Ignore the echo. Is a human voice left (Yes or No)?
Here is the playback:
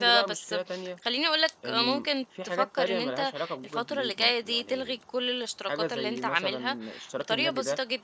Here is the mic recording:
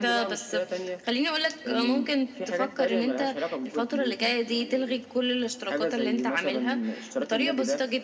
No